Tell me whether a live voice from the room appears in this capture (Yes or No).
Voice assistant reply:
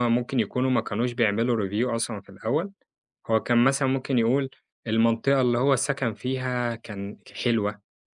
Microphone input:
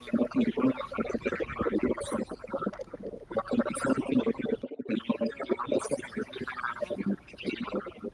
No